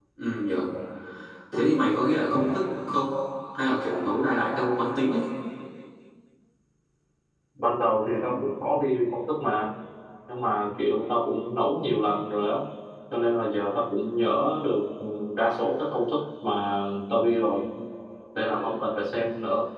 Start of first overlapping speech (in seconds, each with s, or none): none